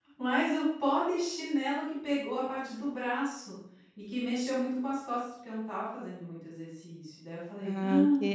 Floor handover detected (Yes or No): Yes